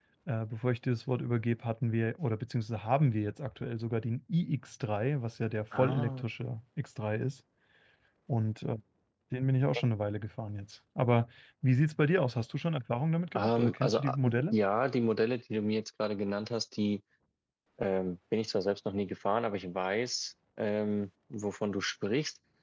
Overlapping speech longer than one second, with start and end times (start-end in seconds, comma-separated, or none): 13.3-14.6